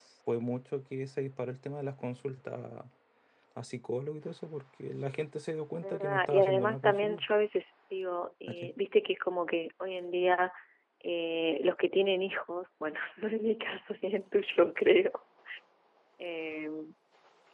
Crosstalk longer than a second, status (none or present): present